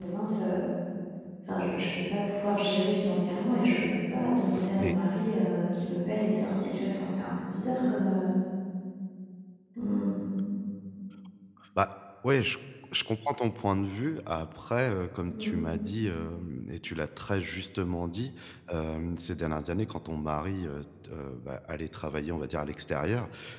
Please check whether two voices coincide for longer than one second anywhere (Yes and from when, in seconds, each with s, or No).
No